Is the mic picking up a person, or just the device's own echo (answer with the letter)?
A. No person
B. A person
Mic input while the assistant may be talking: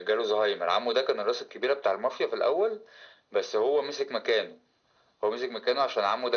A